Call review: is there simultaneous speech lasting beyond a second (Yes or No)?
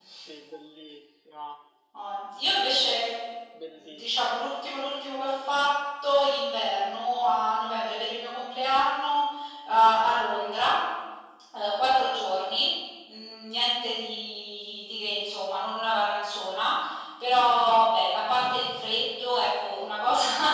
No